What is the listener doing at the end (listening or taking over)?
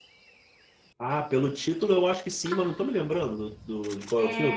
taking over